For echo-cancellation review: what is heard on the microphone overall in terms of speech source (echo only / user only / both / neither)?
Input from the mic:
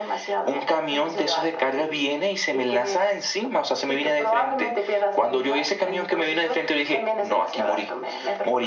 echo only